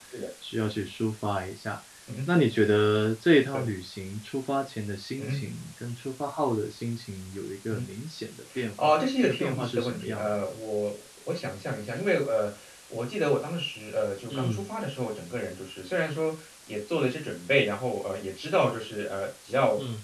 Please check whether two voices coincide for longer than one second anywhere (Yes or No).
Yes